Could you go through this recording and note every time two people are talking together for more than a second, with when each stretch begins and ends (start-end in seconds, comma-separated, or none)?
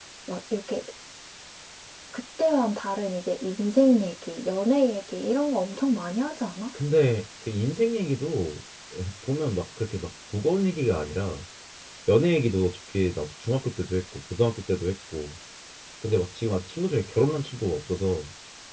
none